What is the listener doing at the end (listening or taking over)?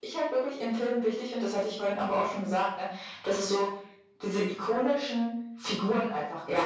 listening